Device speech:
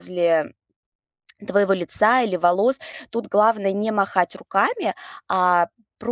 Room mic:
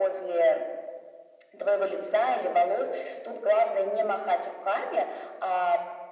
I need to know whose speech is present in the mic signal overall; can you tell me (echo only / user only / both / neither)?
echo only